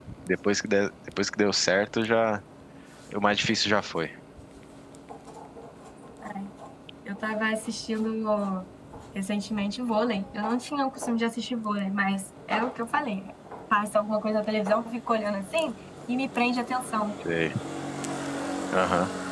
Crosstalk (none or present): none